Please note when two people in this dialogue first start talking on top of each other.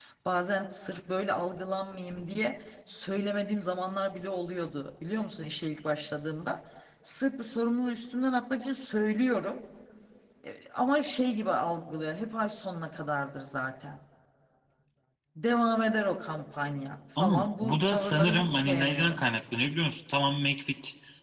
17.2 s

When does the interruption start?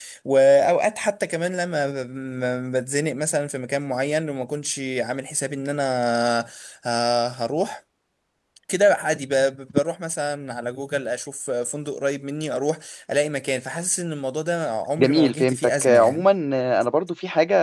15.0 s

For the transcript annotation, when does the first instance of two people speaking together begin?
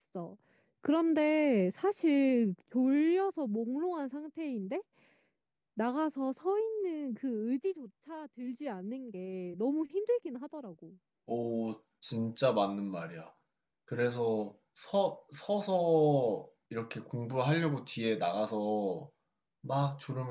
none

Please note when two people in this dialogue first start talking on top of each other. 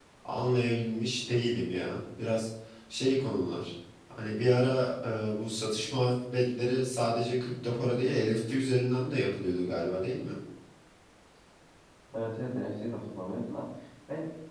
none

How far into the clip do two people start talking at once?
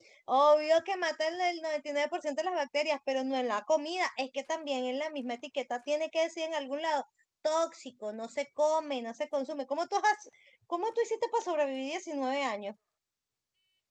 none

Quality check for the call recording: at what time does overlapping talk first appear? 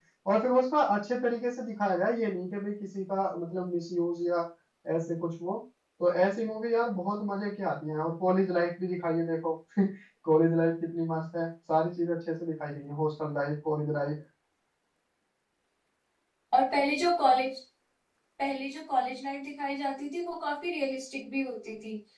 none

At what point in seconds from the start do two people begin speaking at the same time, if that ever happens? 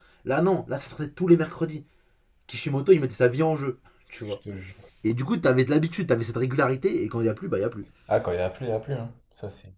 none

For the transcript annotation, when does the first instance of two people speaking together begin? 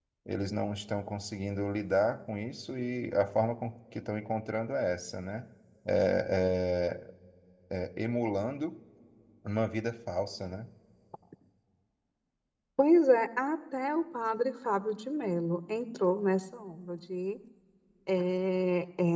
none

